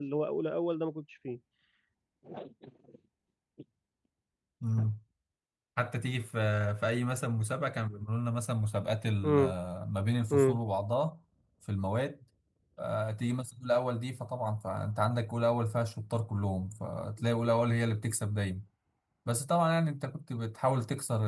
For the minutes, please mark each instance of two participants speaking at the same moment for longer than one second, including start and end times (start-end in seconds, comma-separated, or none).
none